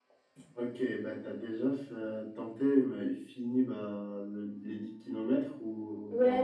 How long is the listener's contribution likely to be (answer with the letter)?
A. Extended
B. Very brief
A